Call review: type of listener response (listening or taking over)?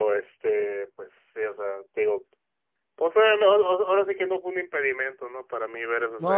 taking over